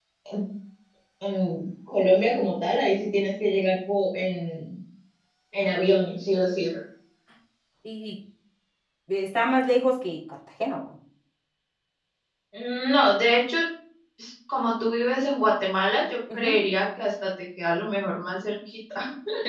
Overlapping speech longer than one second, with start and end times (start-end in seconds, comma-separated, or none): none